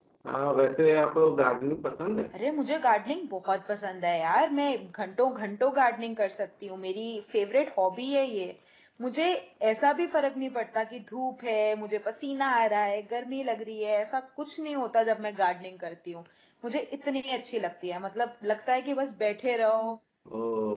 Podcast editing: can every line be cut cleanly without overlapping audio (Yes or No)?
Yes